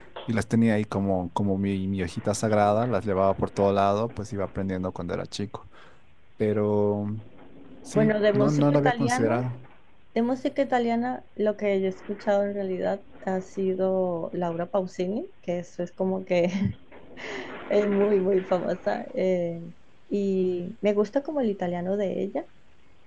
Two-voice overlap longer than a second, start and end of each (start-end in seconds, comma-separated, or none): 7.9-9.4